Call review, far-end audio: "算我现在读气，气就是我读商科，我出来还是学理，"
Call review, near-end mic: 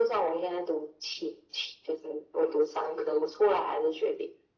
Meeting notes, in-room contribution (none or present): none